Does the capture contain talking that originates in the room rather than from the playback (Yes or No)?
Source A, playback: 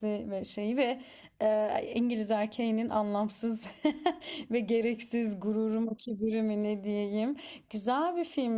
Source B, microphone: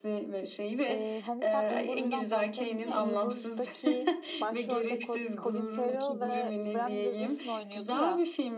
Yes